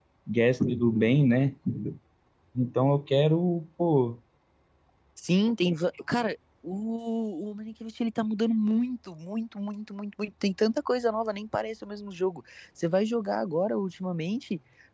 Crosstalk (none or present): none